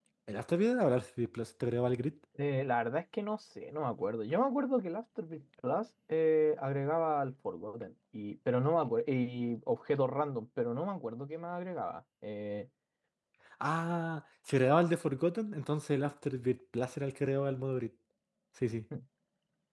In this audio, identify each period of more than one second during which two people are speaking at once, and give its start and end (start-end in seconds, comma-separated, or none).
none